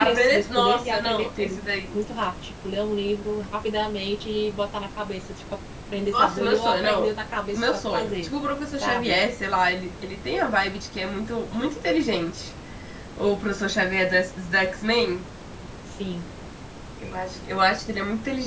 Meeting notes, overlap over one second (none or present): present